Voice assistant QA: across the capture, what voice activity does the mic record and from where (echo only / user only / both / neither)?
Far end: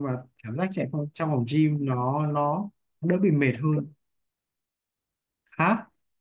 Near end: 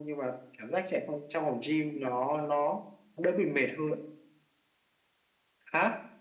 echo only